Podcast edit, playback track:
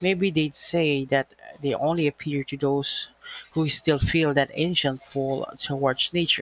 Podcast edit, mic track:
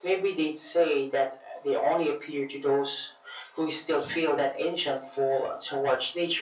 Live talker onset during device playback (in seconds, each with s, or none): none